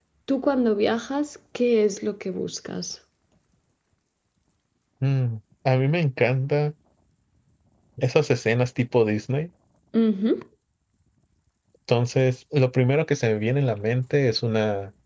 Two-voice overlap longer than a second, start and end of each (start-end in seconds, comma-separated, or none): none